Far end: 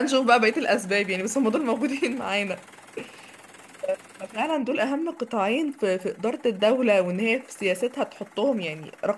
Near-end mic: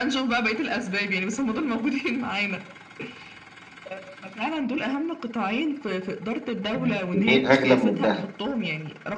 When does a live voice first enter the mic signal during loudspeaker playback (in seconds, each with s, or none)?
6.7 s